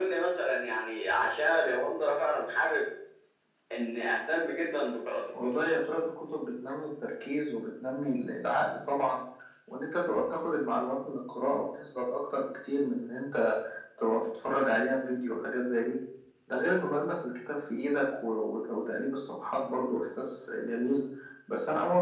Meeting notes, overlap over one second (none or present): none